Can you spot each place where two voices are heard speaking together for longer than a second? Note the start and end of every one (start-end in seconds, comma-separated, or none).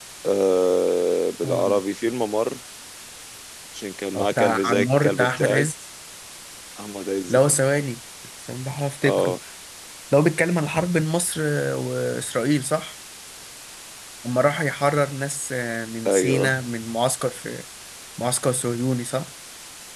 4.1-5.7